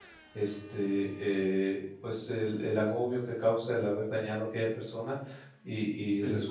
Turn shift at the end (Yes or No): No